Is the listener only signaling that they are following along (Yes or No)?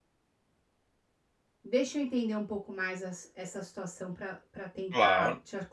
No